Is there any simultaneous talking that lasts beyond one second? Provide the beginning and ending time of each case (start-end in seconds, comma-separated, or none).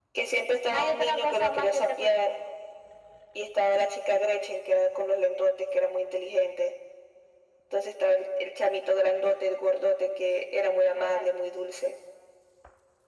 0.7-2.3